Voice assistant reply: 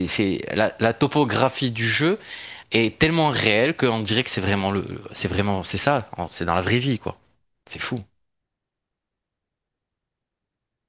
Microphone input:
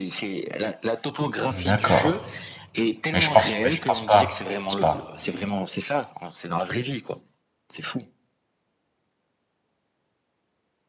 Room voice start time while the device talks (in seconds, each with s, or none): 1.5 s